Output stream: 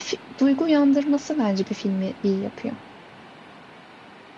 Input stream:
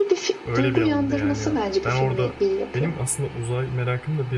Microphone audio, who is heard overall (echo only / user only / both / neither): both